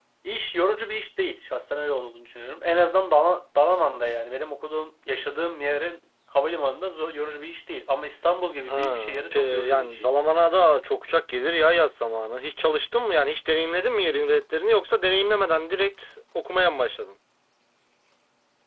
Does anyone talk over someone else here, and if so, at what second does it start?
9 s

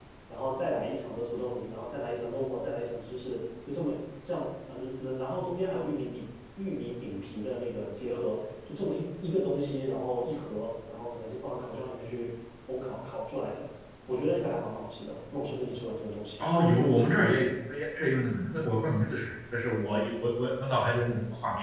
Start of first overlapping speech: none

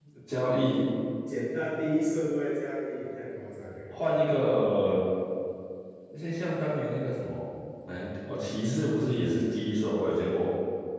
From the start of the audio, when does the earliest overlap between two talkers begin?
none

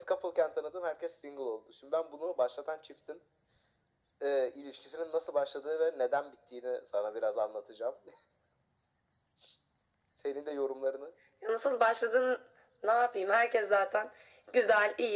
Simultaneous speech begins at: none

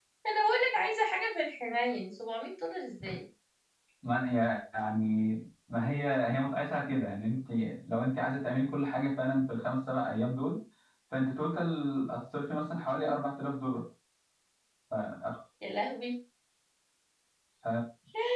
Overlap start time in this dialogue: none

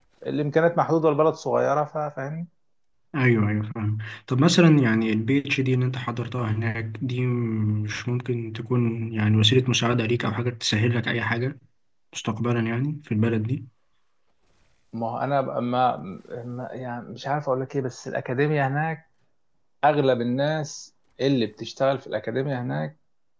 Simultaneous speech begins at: none

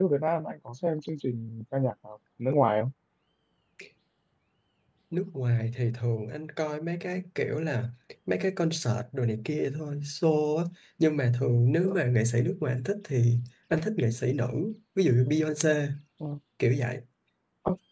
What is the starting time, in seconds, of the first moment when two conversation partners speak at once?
none

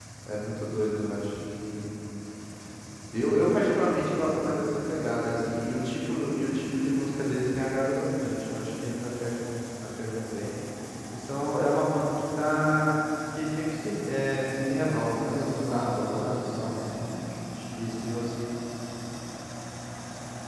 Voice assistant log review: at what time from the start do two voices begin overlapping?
15 s

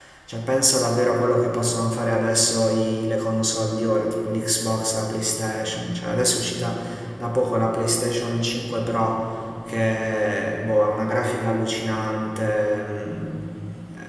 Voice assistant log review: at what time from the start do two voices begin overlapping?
none

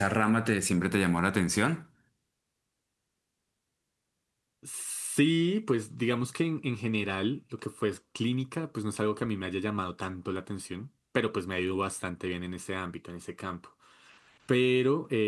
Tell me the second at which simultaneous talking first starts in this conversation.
none

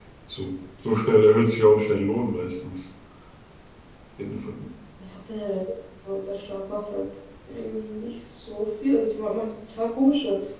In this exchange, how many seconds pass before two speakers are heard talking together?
none

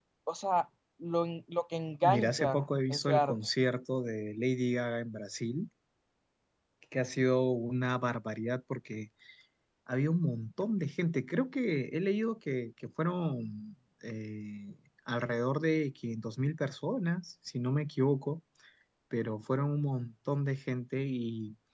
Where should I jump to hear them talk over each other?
2 s

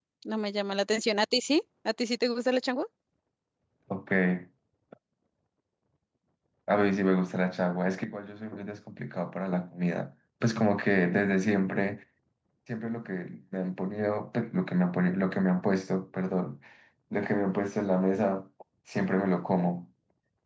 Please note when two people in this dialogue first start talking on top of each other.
none

